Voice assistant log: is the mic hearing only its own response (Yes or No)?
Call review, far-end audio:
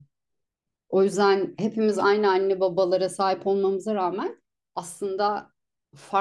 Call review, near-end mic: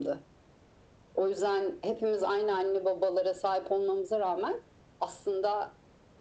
Yes